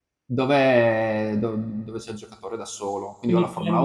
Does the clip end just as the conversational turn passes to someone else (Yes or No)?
No